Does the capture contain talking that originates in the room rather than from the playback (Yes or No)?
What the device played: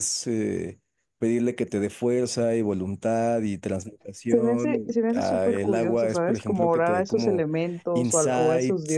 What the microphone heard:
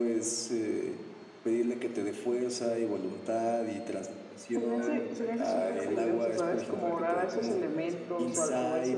Yes